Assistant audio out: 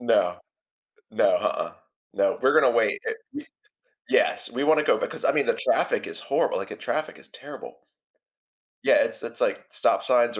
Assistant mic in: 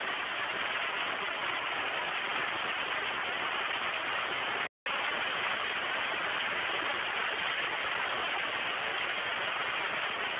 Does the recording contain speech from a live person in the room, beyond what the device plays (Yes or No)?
No